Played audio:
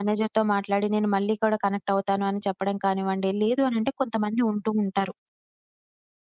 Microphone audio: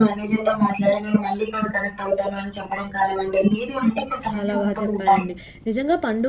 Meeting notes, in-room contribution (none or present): present